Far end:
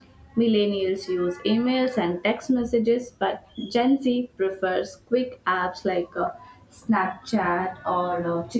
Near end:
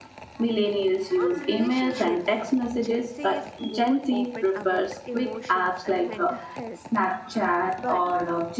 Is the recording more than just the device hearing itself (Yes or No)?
Yes